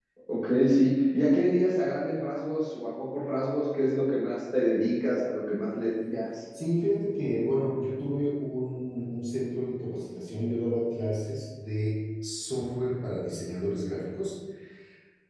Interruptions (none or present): none